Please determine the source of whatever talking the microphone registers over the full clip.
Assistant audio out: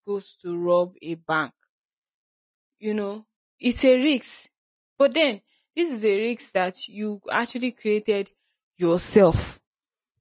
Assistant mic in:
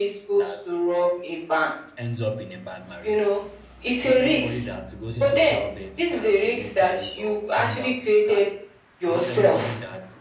both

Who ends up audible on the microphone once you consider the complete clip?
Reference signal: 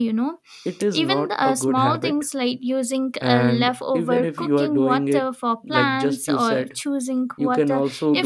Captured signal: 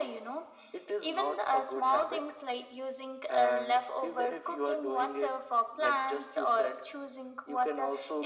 echo only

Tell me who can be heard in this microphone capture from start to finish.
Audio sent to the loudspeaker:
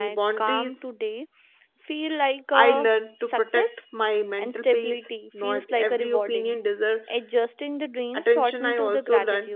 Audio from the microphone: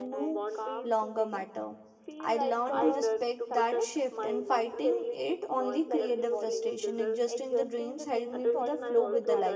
both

